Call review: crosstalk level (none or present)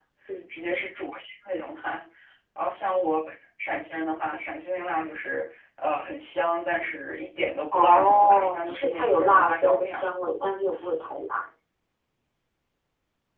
present